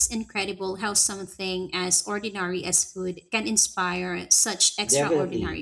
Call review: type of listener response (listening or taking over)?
taking over